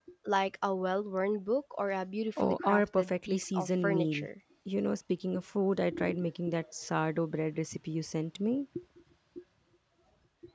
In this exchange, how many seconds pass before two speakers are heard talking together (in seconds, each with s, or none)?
2.4 s